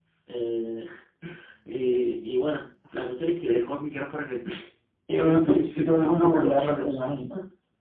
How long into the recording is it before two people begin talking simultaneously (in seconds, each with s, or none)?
5.1 s